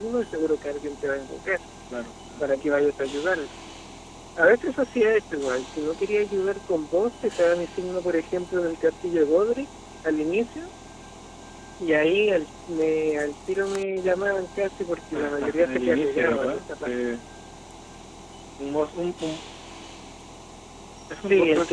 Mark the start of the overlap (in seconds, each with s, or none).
15.1 s